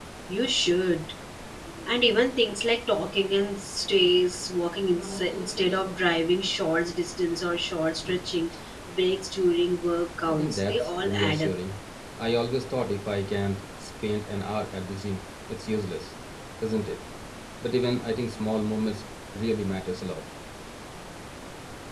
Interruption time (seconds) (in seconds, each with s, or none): 10.3 s